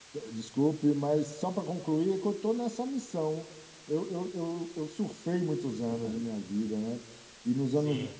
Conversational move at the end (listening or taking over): listening